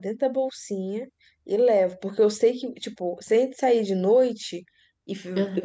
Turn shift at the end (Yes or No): No